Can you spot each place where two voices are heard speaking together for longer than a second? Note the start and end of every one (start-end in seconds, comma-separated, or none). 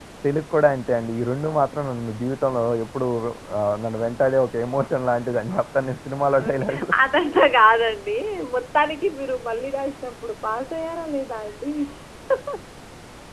none